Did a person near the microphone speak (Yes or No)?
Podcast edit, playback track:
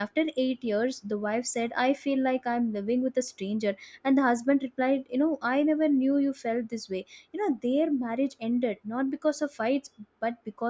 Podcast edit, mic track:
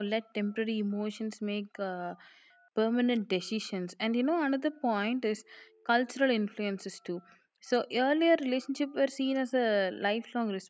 Yes